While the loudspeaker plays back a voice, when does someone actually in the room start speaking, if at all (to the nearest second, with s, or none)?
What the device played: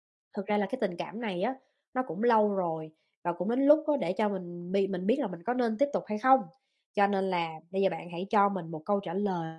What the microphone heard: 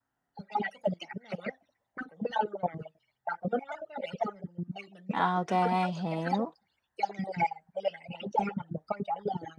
5 s